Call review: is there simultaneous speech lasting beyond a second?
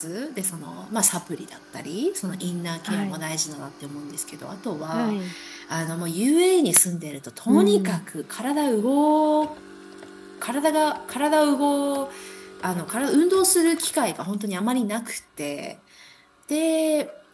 No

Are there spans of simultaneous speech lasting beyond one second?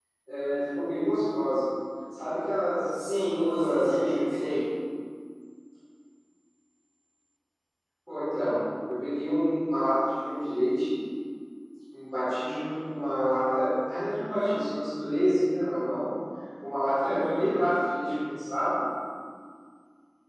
Yes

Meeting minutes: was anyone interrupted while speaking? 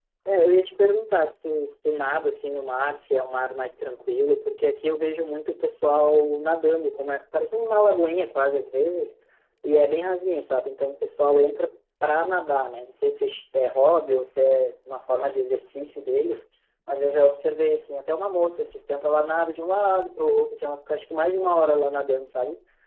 No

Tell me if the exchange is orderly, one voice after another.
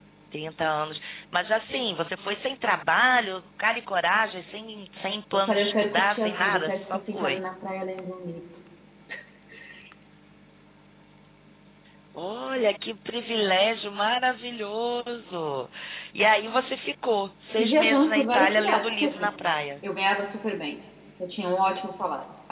No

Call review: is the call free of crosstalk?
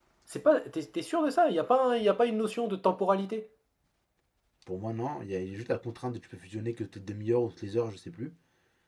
Yes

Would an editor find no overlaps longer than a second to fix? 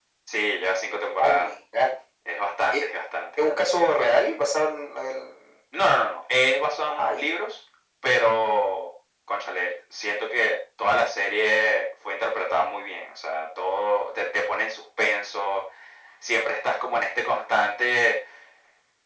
Yes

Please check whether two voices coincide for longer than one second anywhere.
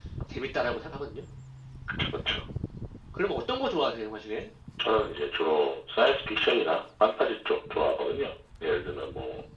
No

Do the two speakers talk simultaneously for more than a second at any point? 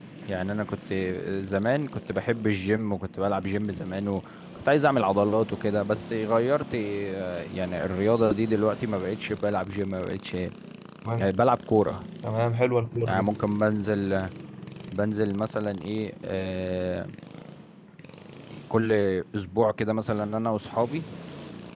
No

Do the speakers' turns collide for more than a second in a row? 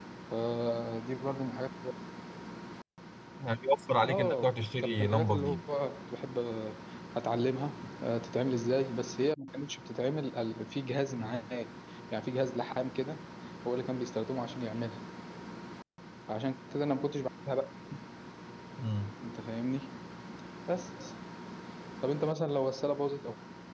Yes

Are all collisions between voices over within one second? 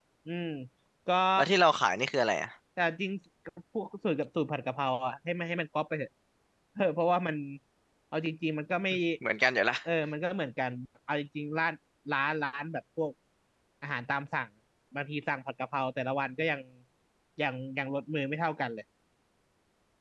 Yes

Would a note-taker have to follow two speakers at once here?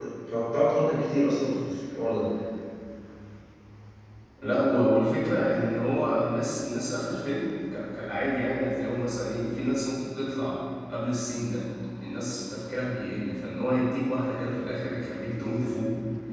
No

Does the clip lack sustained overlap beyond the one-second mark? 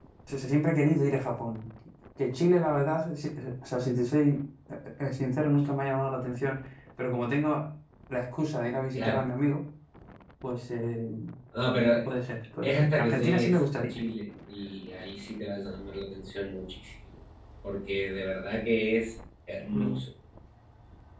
No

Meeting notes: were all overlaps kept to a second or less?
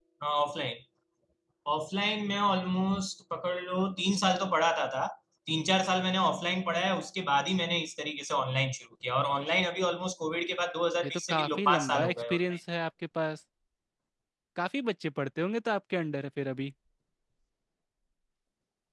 No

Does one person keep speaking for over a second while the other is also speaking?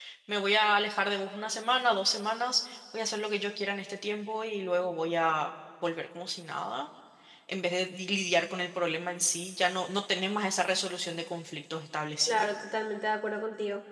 No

